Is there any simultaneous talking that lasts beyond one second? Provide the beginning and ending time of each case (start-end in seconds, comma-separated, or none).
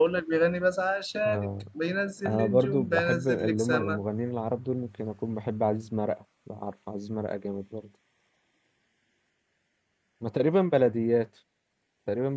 2.3-4.0